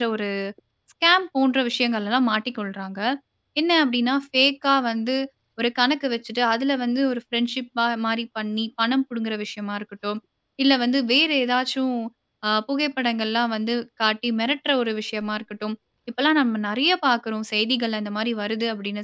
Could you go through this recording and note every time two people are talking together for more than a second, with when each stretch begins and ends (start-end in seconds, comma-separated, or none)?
none